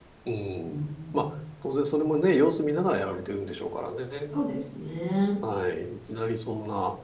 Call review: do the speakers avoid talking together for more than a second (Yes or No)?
Yes